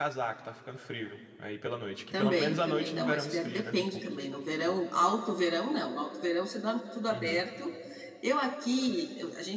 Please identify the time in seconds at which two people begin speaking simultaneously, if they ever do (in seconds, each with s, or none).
2.1 s